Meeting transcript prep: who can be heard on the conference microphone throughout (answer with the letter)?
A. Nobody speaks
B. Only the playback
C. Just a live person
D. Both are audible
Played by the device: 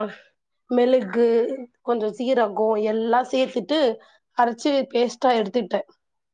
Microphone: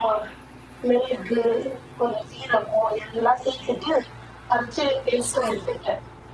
D